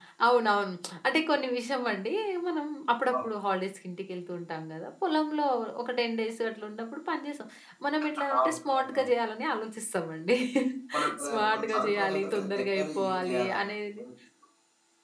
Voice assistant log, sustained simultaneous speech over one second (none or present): present